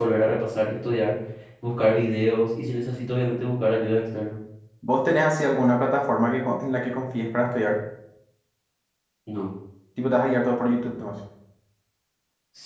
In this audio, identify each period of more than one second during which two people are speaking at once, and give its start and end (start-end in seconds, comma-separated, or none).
none